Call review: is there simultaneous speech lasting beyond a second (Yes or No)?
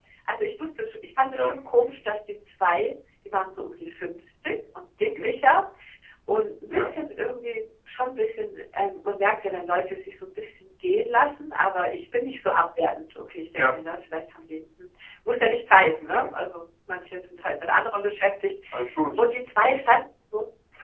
No